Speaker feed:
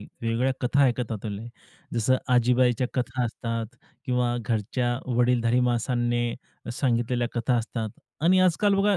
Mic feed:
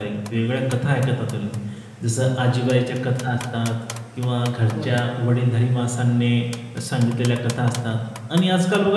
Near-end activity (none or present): present